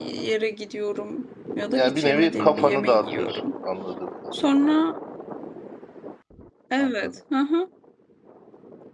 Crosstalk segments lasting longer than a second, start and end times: 1.7-3.4

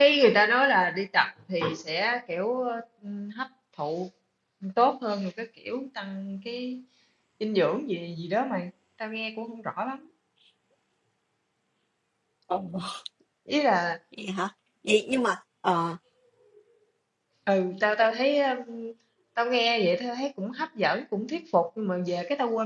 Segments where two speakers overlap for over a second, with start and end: none

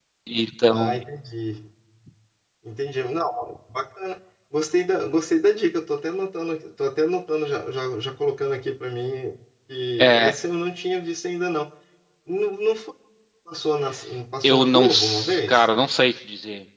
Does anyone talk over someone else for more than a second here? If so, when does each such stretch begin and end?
14.4-15.7

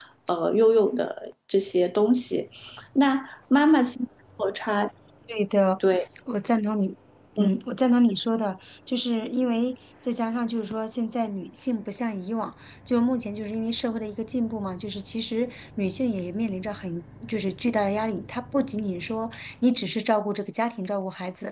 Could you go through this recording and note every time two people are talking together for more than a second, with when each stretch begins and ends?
none

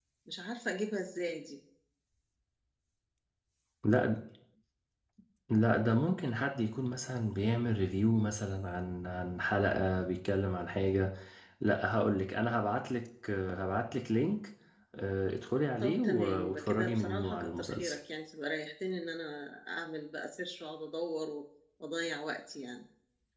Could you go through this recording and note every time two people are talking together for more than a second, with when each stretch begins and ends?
15.8-18.0

